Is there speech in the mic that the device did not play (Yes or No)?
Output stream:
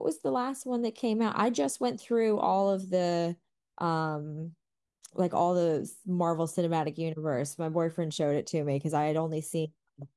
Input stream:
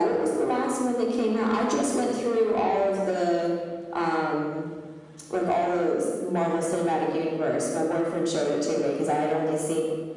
No